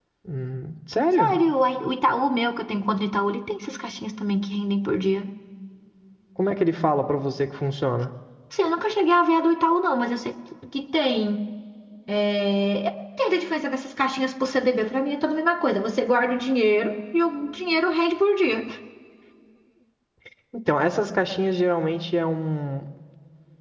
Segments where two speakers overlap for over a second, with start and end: none

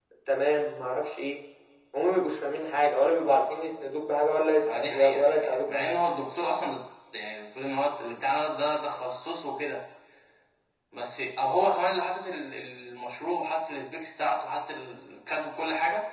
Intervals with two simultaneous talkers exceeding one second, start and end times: 4.7-6.0

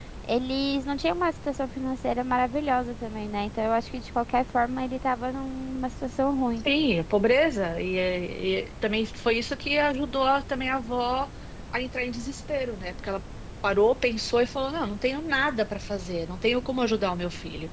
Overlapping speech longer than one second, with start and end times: none

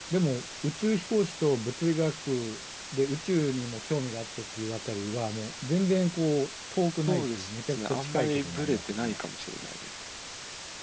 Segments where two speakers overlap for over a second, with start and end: 7.1-9.2

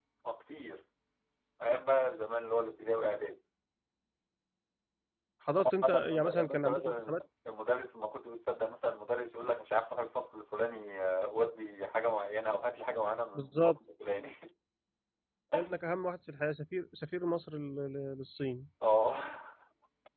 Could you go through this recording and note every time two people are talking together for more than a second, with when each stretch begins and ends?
5.5-7.2

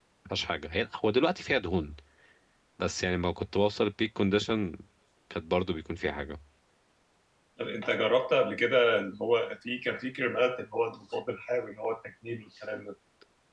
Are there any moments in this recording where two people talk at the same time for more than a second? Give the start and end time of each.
none

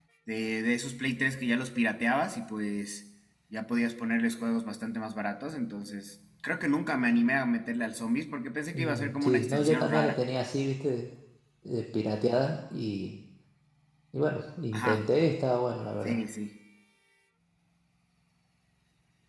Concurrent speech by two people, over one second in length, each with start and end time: 8.7-10.2

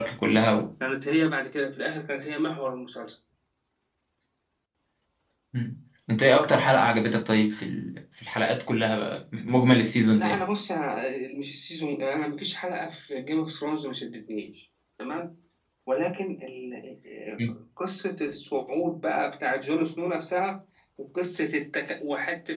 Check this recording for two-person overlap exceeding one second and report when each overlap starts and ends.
none

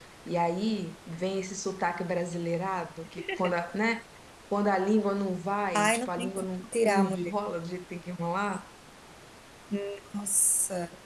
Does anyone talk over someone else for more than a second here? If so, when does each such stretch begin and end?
5.7-7.3

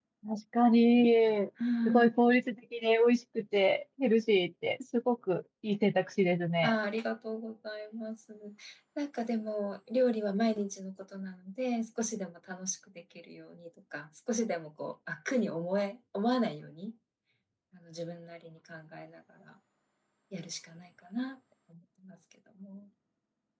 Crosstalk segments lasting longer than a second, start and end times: none

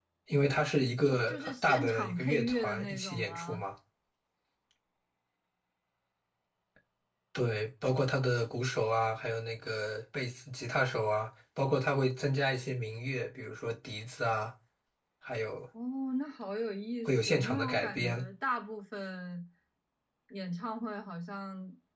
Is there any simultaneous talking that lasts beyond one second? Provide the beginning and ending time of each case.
1.1-3.6, 17.1-18.2

